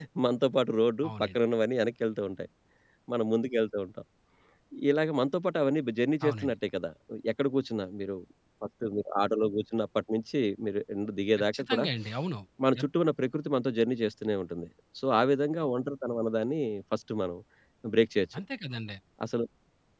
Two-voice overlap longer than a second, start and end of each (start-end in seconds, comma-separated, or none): none